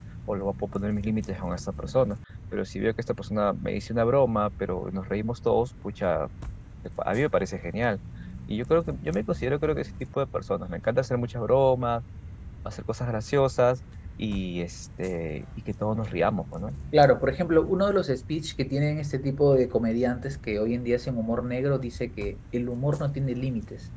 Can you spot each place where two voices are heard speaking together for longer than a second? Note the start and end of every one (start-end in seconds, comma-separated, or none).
none